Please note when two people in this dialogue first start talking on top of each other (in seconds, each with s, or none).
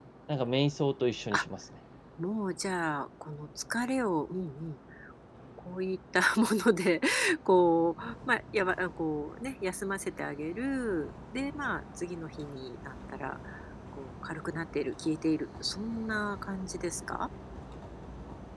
none